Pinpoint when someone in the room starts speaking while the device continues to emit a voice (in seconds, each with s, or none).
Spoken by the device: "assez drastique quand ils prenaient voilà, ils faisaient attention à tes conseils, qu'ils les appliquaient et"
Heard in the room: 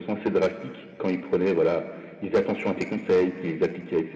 none